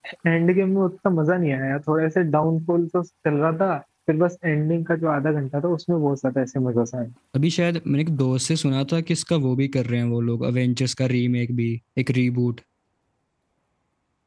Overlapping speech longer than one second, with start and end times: none

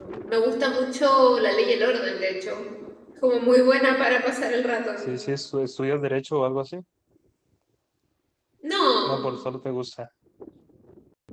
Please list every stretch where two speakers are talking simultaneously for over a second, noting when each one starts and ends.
none

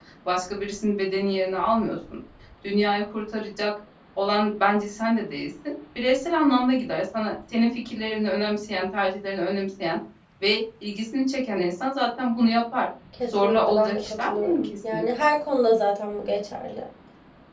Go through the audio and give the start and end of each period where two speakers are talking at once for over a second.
13.3-15.0

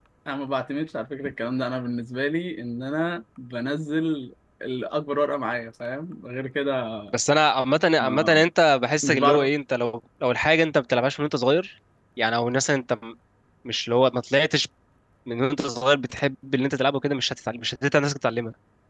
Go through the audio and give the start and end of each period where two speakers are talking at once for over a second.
none

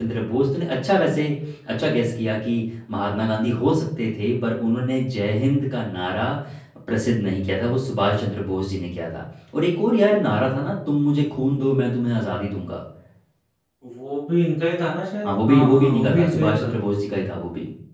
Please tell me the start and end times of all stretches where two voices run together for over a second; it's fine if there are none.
15.2-16.7

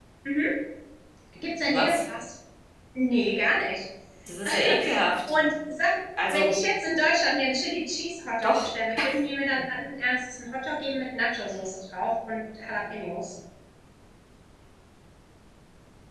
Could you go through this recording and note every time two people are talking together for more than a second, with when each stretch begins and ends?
none

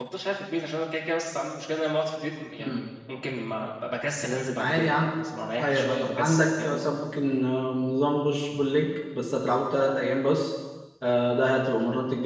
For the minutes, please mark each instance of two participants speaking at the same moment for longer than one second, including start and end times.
5.6-7.0

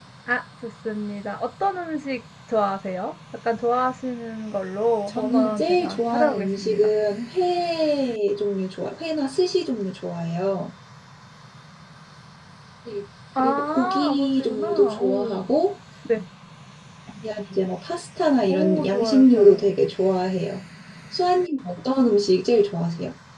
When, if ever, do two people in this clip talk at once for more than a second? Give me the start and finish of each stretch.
5.1-6.9, 13.4-15.4, 18.5-19.7

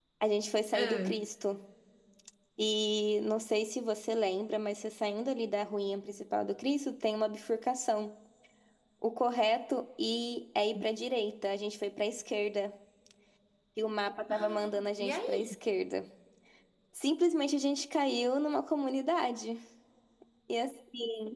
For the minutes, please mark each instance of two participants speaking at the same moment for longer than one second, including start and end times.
14.3-15.5

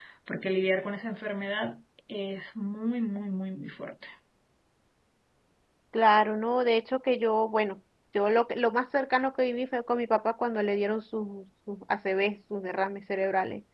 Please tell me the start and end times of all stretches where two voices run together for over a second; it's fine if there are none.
none

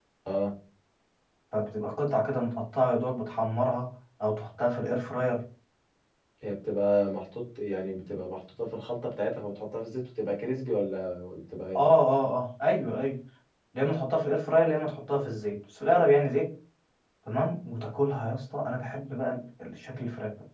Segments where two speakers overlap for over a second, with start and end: none

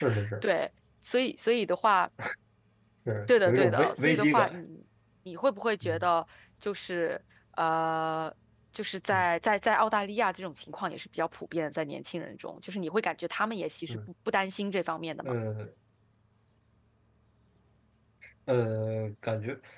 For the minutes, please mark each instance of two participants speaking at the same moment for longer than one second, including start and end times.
3.3-4.6

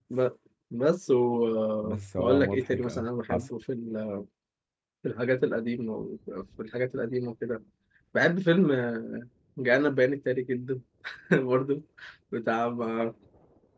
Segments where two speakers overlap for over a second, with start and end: 1.8-3.5

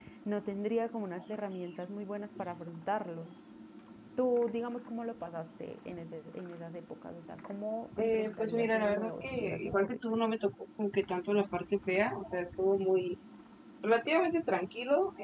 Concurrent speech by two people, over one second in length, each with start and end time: 8.0-10.0

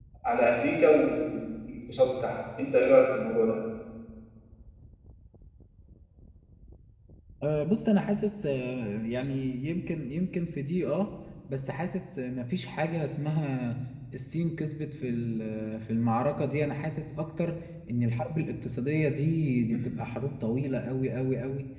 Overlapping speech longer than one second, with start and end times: none

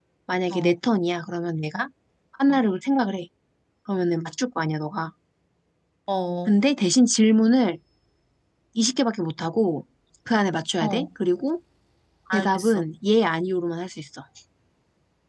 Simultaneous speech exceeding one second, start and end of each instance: none

